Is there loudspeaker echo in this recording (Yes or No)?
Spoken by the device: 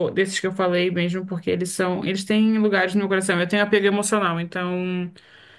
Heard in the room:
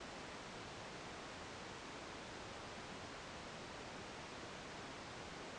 No